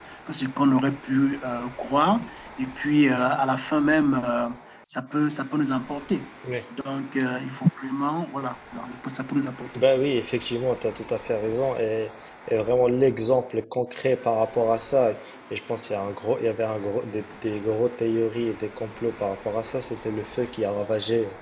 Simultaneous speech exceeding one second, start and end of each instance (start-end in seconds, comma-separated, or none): none